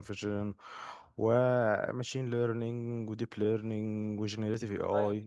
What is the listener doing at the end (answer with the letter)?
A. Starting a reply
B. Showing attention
A